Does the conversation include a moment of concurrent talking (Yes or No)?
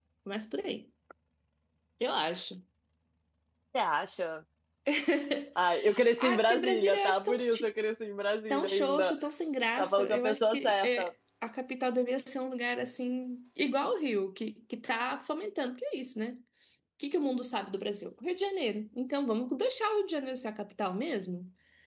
Yes